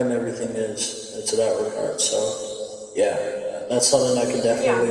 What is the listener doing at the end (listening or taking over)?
taking over